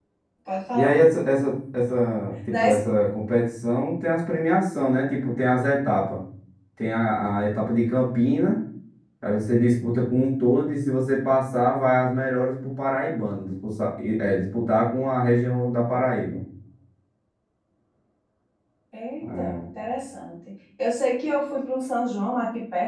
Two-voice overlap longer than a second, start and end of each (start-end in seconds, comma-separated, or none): none